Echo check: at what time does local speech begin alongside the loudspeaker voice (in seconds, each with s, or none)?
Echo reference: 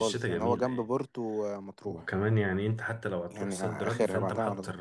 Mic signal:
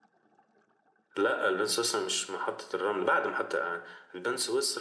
1.2 s